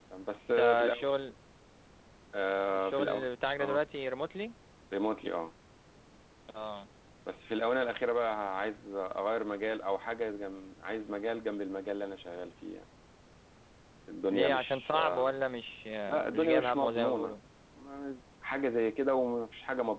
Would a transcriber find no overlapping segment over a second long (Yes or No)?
No